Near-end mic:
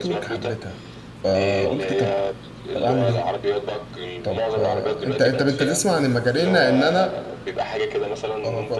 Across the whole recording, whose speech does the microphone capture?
both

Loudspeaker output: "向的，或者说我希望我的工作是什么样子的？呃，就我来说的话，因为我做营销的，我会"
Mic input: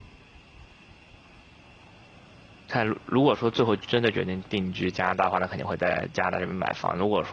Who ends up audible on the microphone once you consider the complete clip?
user only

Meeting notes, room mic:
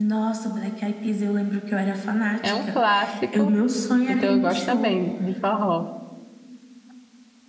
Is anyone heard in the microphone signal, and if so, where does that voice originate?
both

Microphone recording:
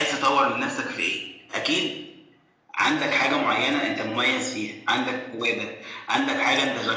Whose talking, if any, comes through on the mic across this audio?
echo only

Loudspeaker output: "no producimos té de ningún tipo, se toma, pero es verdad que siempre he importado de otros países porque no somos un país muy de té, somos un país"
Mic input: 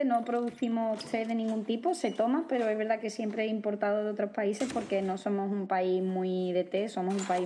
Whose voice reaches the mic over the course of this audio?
echo only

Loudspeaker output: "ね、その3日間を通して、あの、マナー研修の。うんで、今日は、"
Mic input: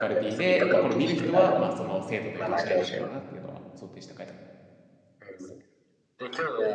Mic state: both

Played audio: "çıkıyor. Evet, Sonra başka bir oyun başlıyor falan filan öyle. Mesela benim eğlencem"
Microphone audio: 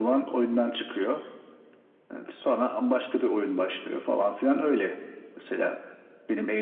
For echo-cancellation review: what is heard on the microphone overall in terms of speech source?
echo only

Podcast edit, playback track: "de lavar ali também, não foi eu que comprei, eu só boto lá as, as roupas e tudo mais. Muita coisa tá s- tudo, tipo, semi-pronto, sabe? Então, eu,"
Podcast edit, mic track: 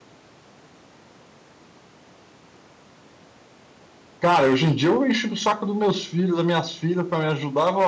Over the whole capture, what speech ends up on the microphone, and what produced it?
user only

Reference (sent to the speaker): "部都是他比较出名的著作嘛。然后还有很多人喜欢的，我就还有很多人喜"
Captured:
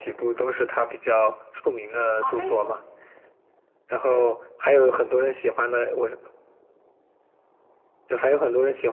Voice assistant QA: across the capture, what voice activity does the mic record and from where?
both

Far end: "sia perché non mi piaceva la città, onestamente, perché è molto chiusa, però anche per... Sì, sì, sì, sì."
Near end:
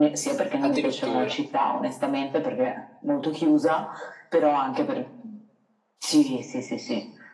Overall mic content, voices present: both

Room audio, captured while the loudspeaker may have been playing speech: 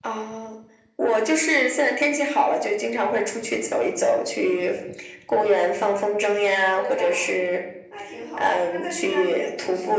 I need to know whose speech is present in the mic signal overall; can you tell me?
both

